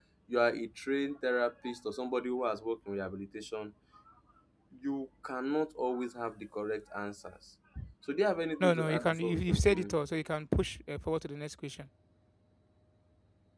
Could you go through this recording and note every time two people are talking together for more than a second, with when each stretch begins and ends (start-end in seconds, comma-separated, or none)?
8.6-9.9